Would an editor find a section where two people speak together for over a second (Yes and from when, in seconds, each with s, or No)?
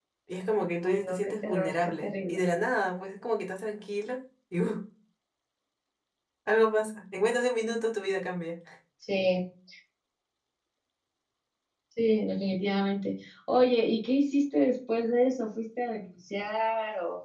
Yes, from 0.9 s